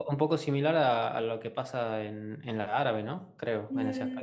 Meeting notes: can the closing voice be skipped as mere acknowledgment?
No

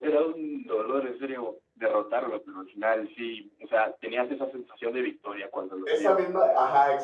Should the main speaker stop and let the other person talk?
Yes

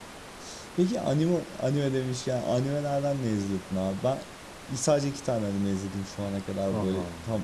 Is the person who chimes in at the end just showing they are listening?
Yes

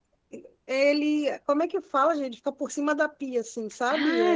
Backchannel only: No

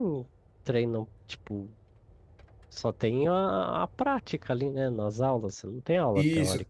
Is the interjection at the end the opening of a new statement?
Yes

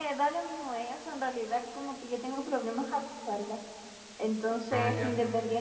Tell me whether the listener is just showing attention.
Yes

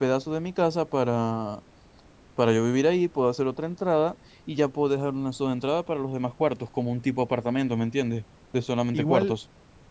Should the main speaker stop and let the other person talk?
Yes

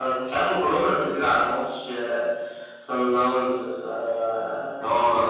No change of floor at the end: No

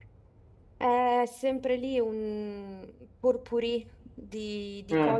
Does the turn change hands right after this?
No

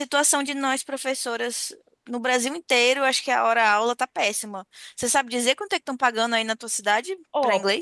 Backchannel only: No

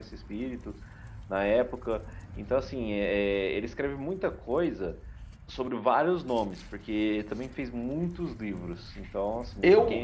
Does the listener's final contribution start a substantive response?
Yes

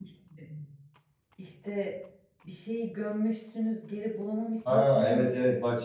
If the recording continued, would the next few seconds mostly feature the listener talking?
Yes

